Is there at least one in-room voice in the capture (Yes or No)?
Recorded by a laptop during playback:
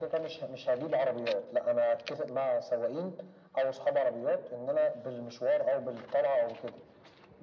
No